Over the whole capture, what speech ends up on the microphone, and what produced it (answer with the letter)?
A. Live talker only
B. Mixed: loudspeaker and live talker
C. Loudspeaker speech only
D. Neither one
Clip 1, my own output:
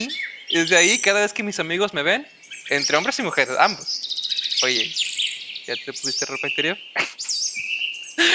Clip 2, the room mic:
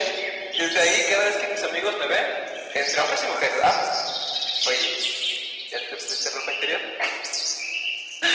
C